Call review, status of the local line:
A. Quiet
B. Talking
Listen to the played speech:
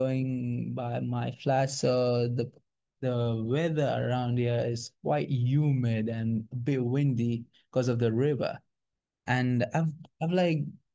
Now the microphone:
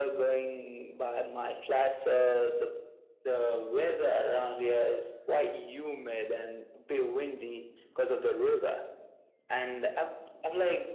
A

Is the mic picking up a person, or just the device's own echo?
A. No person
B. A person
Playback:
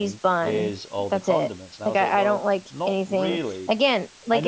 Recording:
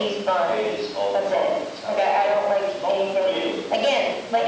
A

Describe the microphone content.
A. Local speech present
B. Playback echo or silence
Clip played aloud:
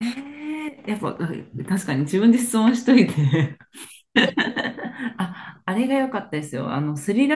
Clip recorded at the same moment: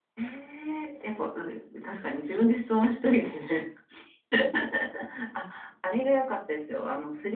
B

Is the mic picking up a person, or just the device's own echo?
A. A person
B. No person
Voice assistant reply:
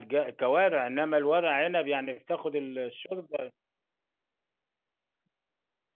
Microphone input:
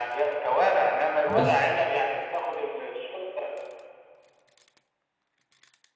A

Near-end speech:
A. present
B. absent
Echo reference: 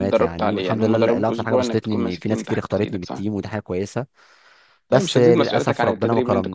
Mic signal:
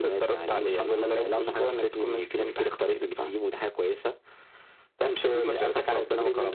B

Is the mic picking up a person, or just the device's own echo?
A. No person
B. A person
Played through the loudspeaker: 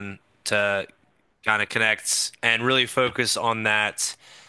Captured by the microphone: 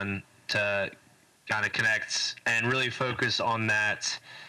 A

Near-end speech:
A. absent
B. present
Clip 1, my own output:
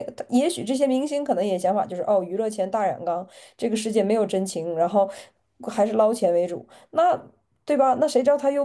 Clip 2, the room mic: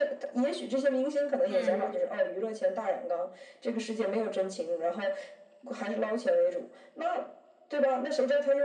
B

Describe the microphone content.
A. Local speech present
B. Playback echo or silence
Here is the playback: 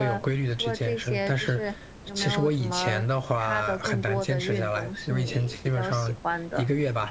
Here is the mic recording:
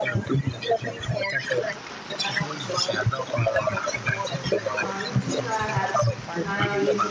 A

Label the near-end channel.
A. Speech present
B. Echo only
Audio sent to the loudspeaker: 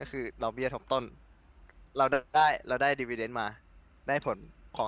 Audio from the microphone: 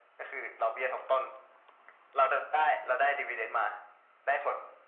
B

